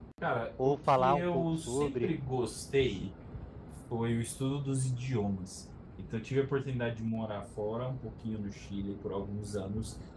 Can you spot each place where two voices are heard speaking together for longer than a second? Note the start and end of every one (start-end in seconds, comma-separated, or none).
0.6-2.1